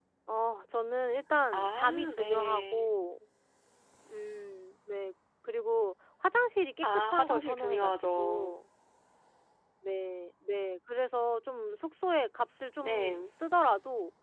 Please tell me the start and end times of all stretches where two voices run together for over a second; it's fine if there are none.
1.5-2.9, 6.8-8.6

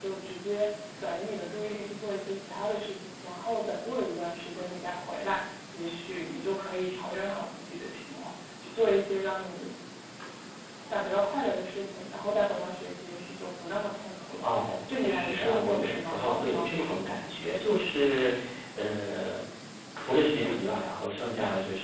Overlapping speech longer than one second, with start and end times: 14.9-17.0

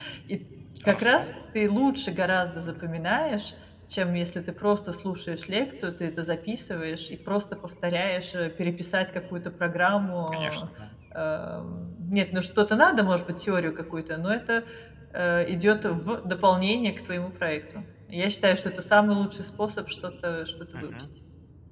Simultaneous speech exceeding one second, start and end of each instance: none

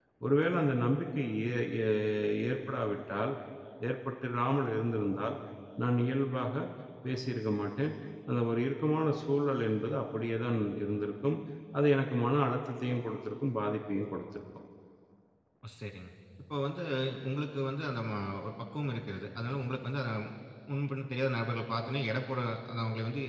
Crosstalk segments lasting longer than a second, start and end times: none

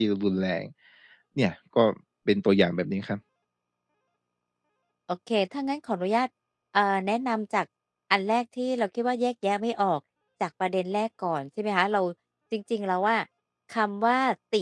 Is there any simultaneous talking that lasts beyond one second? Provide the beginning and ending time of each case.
none

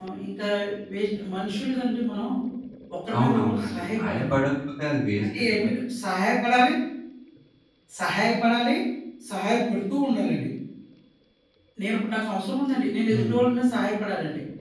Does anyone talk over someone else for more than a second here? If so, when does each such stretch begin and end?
3.2-4.4

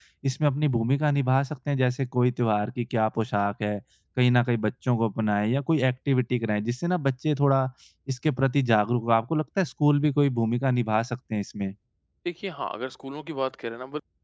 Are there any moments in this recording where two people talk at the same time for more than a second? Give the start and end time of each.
none

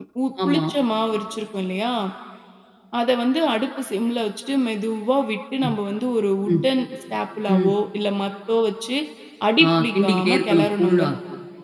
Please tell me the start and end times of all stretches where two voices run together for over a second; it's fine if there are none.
9.6-11.0

